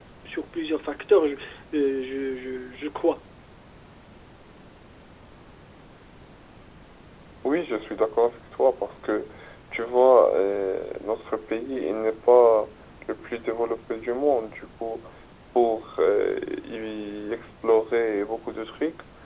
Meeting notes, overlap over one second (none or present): none